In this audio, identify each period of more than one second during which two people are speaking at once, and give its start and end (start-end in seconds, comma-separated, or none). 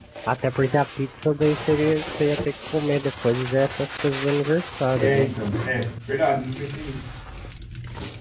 none